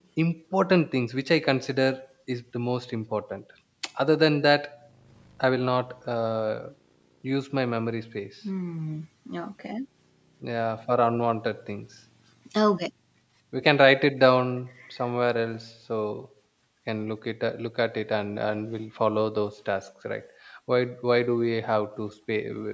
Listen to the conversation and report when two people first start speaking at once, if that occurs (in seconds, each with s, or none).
none